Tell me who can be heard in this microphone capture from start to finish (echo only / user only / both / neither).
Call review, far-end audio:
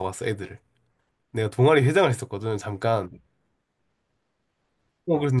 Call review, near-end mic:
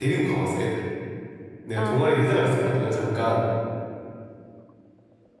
both